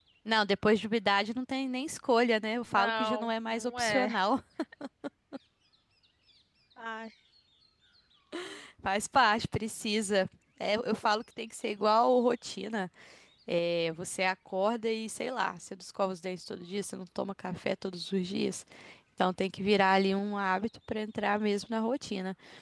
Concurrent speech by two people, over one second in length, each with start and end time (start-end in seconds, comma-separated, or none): 2.7-4.2